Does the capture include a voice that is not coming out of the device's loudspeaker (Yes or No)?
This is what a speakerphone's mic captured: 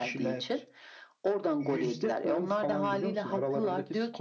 No